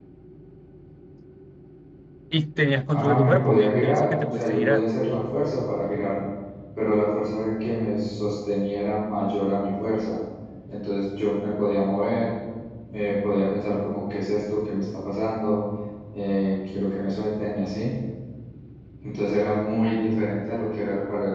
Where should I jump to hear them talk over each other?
2.9 s

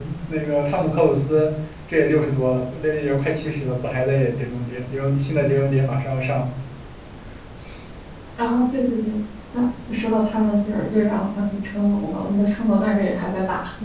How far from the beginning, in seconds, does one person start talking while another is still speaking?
none

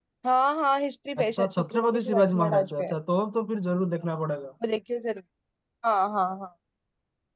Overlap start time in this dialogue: 1.2 s

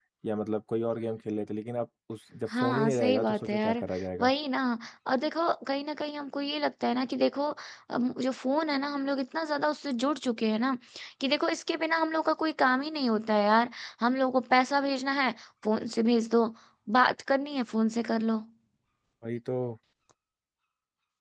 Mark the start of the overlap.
2.5 s

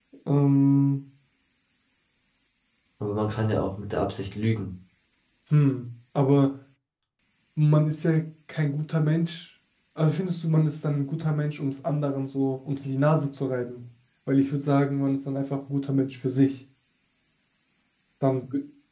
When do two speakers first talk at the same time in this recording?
none

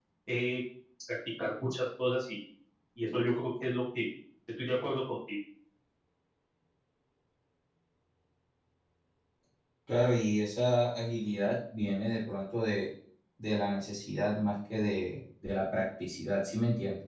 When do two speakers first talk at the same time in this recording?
none

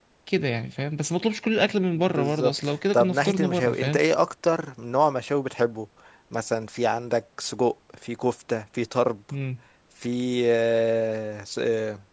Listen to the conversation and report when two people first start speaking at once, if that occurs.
2.2 s

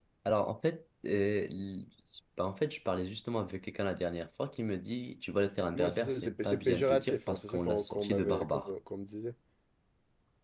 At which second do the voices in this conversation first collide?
5.8 s

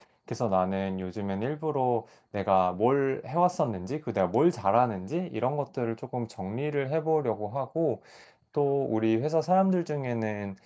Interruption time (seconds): none

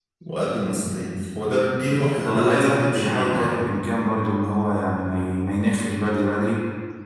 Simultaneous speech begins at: 2.2 s

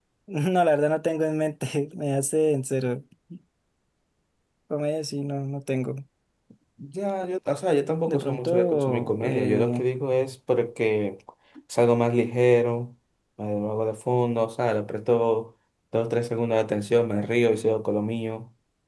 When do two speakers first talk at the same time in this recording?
8.1 s

